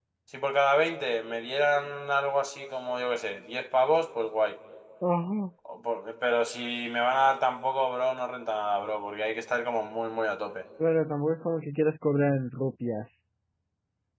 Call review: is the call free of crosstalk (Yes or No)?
Yes